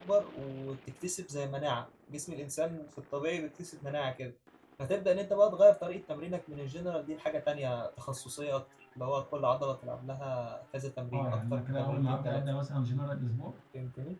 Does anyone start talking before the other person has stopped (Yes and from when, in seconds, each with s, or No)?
Yes, from 11.1 s